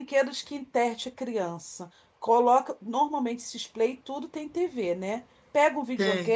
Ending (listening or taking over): listening